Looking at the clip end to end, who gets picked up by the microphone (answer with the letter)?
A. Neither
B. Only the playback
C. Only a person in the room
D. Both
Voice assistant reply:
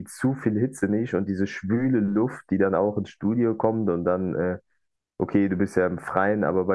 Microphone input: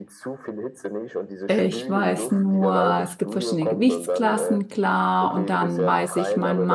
D